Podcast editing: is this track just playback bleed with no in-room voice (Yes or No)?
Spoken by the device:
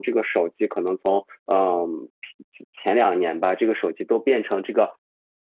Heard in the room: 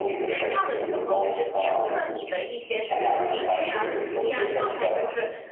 No